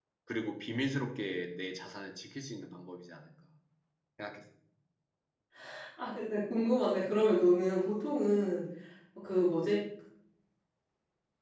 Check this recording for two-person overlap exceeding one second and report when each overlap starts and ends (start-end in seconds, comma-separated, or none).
none